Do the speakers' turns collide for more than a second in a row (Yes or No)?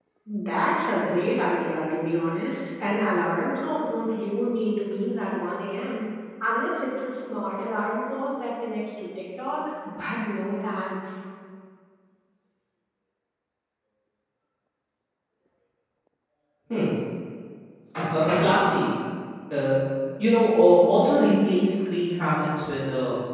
No